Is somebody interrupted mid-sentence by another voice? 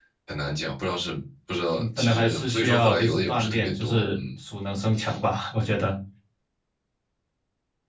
Yes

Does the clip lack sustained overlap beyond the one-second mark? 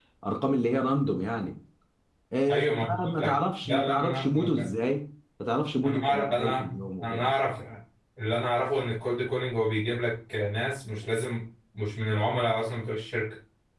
No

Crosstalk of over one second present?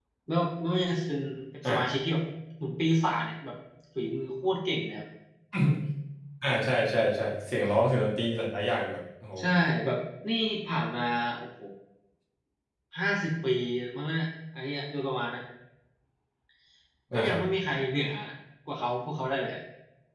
No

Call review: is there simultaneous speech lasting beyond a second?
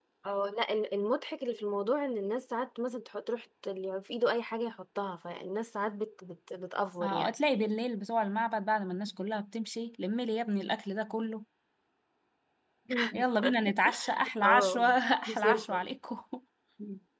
No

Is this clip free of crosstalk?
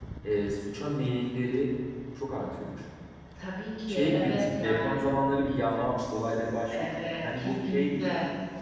No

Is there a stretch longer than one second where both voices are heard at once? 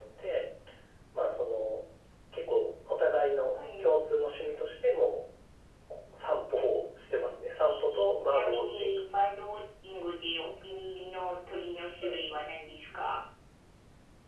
Yes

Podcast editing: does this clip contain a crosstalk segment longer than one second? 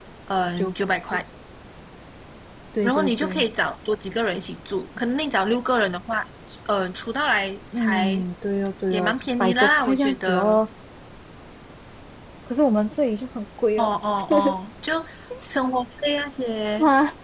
Yes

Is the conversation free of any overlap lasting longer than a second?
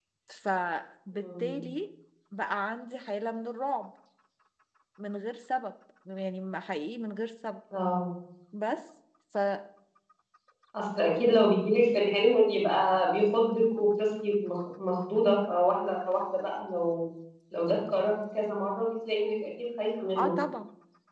Yes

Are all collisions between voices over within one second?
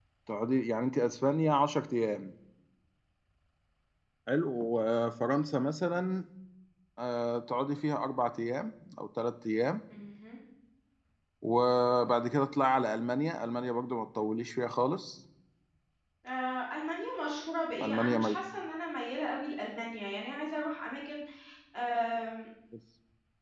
Yes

